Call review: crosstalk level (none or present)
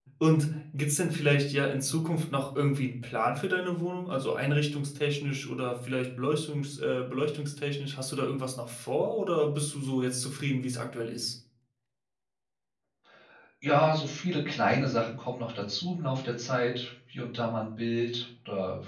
none